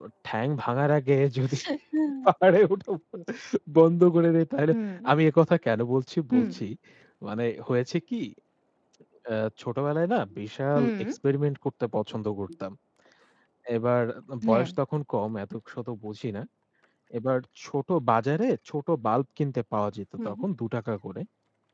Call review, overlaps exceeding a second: none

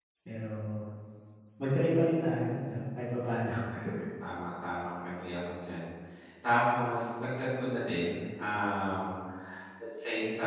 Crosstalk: none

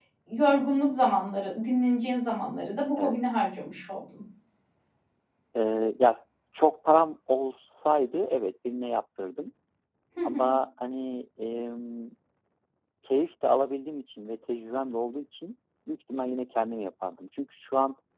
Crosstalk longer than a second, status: none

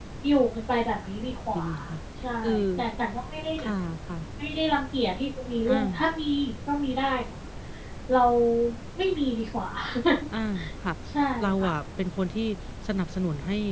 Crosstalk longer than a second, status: none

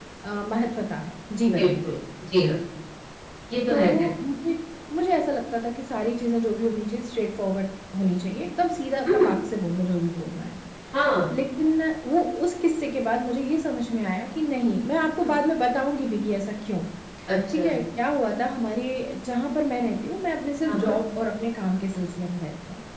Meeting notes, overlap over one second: none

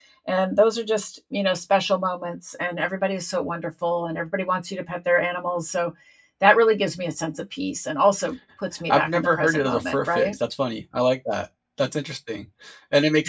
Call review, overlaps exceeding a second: present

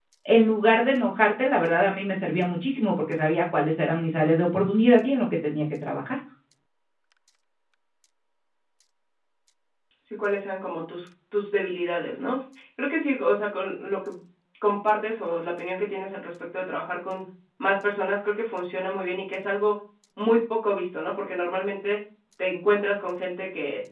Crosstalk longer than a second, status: none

